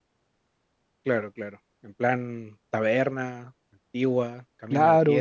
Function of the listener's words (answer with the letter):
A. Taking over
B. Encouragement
A